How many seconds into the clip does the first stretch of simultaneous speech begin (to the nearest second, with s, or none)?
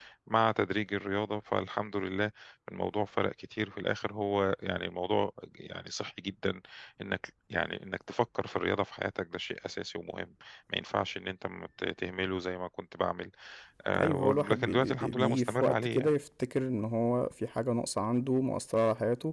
14 s